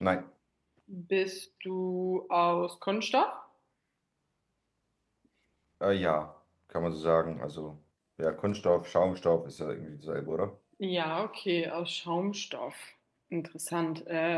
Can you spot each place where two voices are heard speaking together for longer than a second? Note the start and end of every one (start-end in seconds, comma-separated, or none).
none